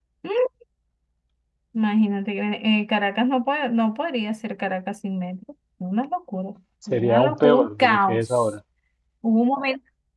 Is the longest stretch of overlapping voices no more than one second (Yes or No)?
No